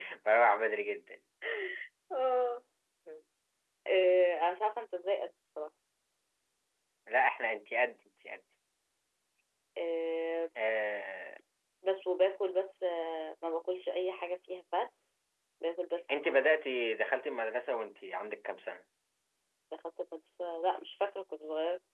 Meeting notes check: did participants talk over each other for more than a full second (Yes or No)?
No